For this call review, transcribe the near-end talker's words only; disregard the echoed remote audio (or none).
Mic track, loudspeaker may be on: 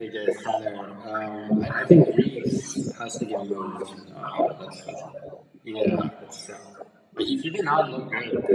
none